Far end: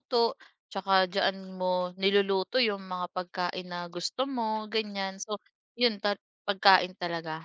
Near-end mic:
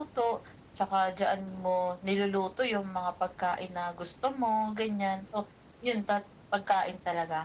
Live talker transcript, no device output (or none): none